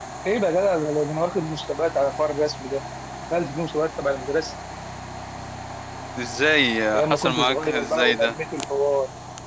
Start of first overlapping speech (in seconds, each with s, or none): 7.0 s